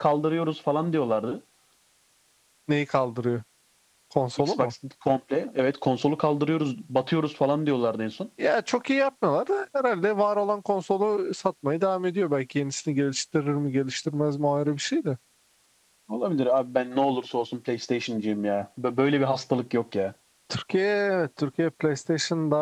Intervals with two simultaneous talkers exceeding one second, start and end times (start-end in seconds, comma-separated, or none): none